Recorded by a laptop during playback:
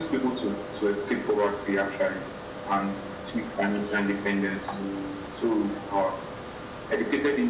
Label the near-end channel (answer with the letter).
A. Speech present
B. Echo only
B